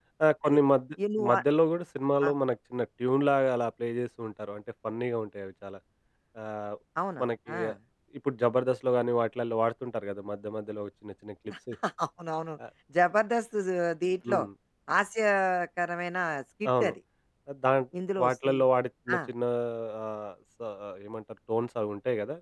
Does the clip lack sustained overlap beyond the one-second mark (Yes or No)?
Yes